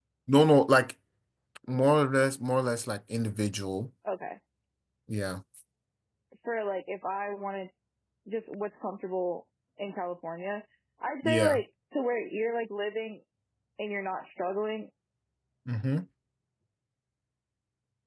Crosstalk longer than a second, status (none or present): none